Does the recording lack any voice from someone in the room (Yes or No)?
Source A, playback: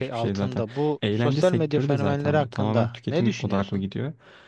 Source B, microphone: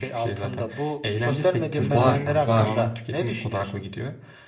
No